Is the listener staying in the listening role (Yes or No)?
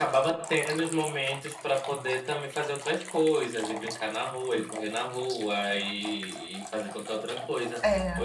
Yes